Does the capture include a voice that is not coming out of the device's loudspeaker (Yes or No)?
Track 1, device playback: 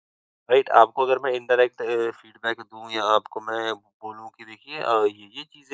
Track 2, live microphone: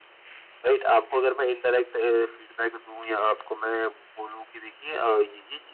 No